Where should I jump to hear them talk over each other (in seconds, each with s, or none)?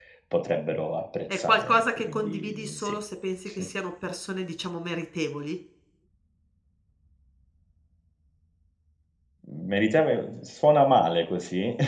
1.3 s